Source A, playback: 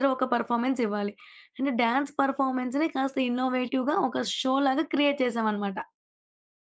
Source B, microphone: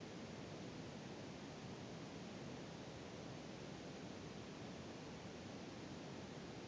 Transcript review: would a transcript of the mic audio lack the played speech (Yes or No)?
Yes